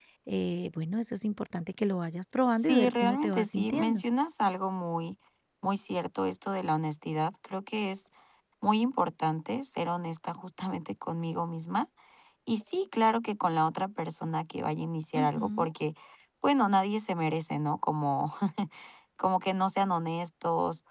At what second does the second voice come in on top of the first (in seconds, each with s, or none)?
2.5 s